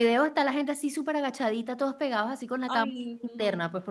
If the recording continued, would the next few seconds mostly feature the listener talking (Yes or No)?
No